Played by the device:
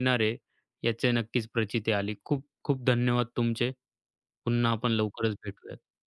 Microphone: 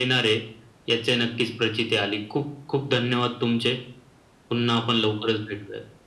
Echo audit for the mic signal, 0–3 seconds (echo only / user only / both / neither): echo only